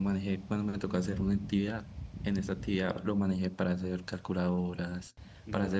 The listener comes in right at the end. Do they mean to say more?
No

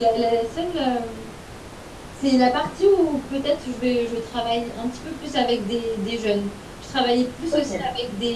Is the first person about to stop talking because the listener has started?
No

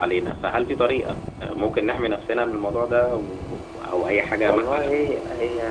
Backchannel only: No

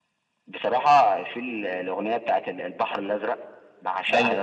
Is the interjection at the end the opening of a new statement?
No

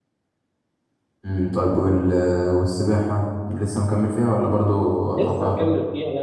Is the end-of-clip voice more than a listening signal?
Yes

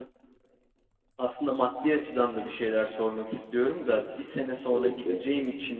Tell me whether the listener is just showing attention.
Yes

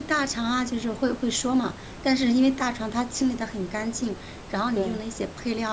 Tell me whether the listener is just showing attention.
Yes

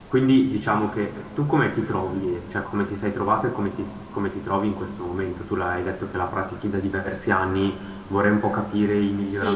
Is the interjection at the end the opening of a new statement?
Yes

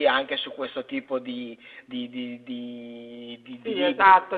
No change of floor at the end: No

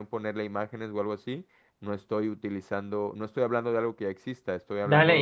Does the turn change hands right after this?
Yes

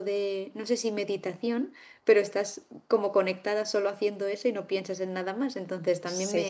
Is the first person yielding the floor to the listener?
No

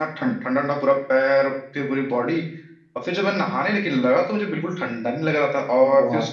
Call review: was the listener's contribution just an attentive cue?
Yes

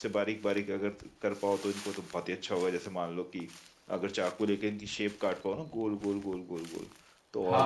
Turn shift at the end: Yes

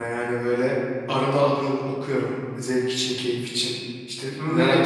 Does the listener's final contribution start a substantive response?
No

